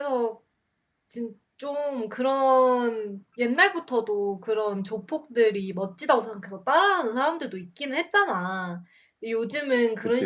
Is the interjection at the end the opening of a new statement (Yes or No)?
No